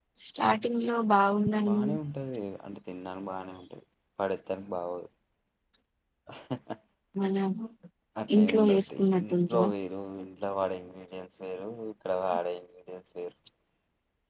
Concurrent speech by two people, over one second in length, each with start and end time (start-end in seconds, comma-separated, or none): 8.3-9.7